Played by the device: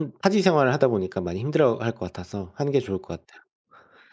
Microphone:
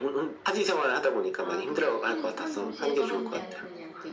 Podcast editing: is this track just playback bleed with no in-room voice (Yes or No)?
No